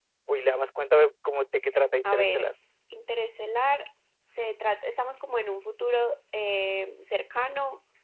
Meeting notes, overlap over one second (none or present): none